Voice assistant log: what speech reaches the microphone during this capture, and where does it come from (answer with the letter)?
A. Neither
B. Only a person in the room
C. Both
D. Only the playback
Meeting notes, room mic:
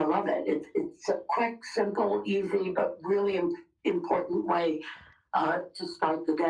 D